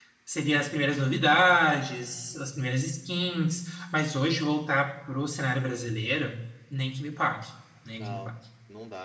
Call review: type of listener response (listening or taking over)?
taking over